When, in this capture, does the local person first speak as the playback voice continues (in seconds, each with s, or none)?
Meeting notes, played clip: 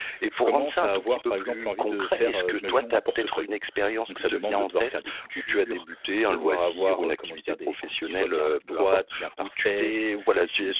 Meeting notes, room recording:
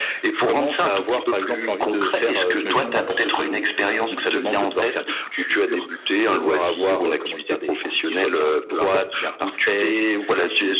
none